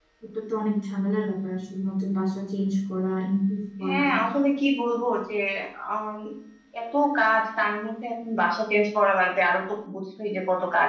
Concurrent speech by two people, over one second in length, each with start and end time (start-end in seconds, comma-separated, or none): none